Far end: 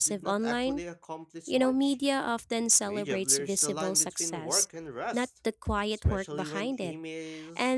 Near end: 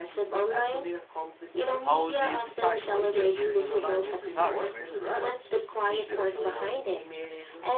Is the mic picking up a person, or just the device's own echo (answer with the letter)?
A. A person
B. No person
A